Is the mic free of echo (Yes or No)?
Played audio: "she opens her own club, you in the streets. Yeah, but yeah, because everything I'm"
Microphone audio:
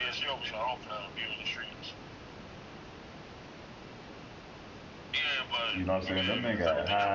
No